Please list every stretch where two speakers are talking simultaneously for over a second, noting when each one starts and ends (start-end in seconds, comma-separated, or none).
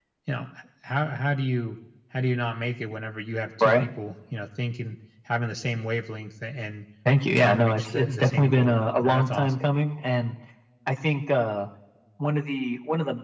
7.4-9.5